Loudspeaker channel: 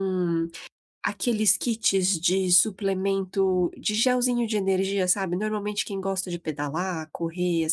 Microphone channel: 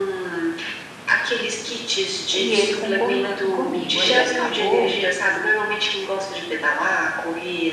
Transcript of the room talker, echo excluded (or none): E ele concordando comigo. Aí acabou